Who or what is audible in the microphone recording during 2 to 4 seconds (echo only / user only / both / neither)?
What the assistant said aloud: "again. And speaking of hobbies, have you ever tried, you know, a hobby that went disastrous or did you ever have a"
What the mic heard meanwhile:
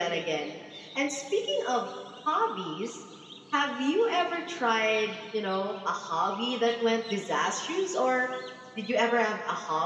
echo only